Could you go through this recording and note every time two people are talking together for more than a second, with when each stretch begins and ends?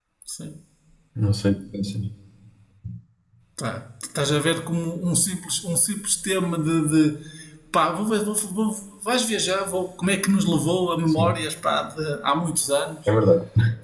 none

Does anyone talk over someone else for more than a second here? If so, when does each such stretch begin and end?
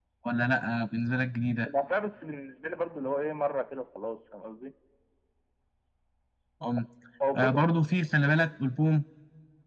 none

